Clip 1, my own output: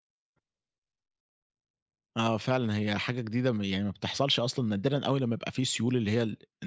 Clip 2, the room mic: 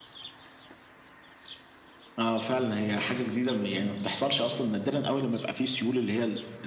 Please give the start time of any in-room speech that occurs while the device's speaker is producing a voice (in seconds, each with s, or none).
none